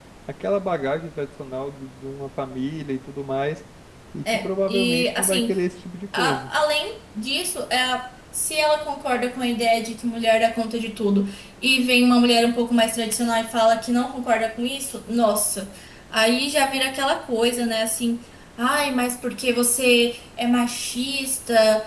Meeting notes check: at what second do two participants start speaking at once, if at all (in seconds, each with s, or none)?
4.3 s